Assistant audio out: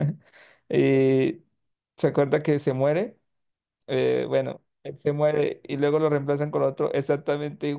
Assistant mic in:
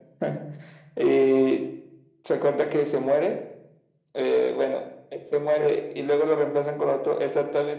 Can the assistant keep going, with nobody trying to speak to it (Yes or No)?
Yes